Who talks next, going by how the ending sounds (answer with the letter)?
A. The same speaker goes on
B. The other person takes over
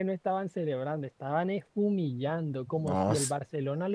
A